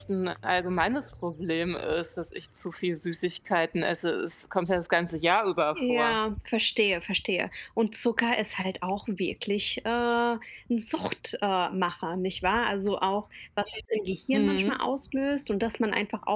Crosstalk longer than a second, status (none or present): none